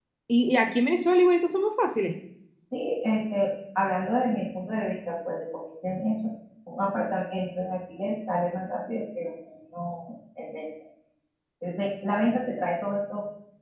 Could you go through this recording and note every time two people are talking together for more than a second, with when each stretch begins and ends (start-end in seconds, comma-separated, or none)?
none